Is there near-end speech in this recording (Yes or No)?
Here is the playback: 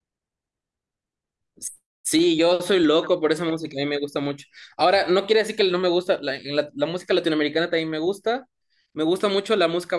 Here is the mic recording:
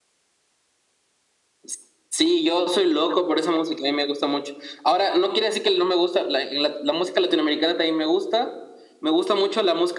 No